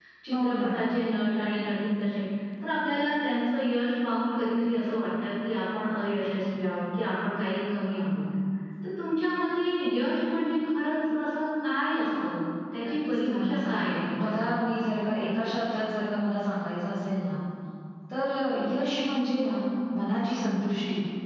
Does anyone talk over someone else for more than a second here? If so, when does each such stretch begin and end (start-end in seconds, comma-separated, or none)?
12.9-14.6